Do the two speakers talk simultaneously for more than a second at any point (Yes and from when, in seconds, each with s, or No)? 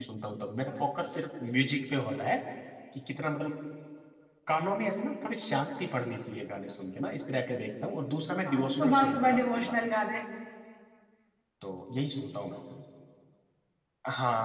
Yes, from 8.4 s